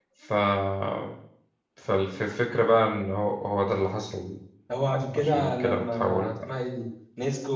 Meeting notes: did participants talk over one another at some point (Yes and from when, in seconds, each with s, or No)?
Yes, from 5.2 s